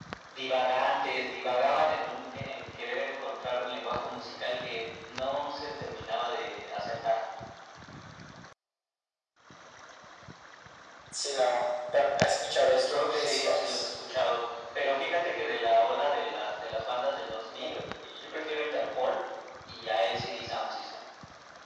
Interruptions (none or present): present